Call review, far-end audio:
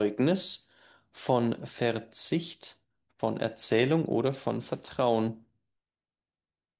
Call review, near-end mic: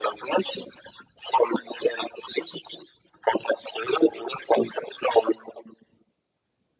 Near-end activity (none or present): none